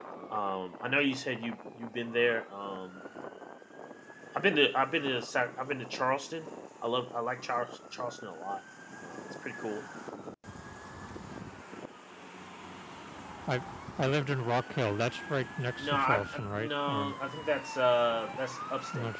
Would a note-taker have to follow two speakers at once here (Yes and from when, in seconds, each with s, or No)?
Yes, from 15.8 s